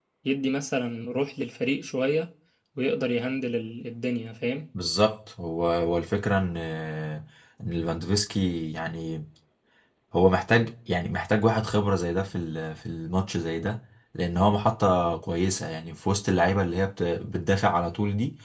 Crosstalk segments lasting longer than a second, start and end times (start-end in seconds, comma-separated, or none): none